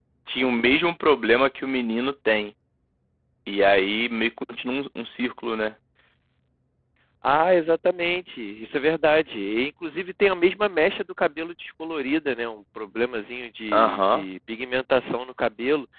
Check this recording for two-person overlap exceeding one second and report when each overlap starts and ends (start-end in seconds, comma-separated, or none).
none